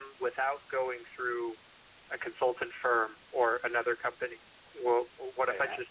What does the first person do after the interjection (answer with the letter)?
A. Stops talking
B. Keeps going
A